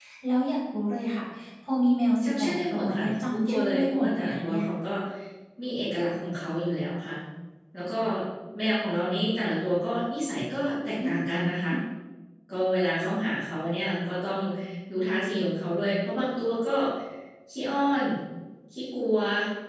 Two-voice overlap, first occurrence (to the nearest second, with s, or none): 2 s